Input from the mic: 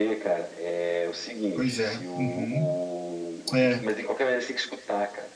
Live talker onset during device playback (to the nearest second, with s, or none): 2 s